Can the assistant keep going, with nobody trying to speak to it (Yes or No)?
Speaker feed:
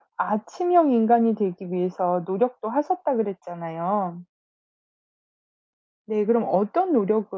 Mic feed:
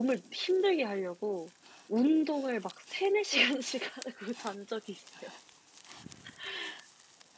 No